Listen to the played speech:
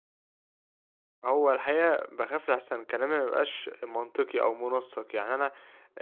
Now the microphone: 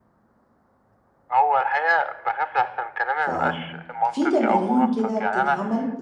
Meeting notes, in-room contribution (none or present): present